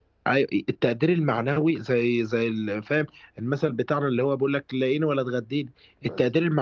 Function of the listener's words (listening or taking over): listening